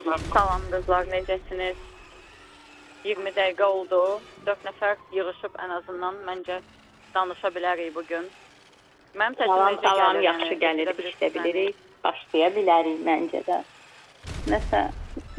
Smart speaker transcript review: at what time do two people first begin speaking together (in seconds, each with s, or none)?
9.4 s